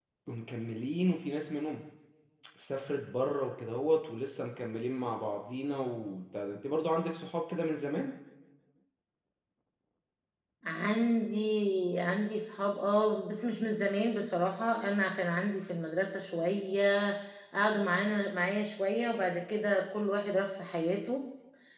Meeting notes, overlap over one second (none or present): none